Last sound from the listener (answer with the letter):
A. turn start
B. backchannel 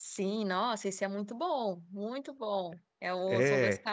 B